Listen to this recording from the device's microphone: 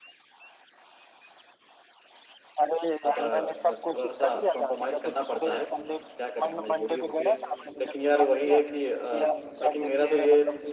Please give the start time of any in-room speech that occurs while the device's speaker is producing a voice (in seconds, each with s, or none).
3.0 s